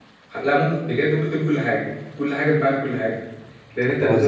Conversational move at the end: listening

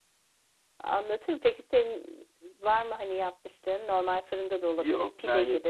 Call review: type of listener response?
taking over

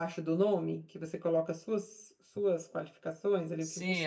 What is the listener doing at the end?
taking over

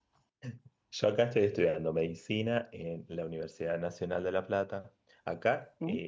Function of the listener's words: listening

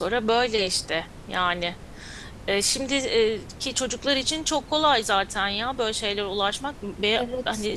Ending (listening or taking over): listening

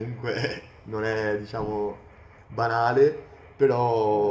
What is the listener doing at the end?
listening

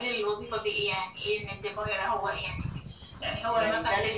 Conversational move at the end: taking over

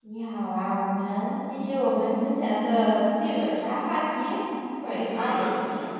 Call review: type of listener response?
taking over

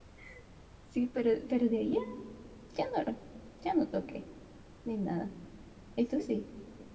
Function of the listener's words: taking over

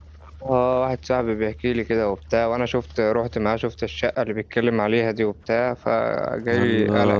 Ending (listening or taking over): taking over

